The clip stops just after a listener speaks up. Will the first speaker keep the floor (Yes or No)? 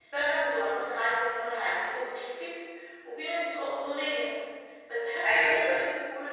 Yes